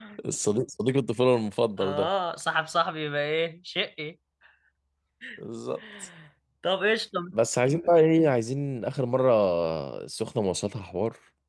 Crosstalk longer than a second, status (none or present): none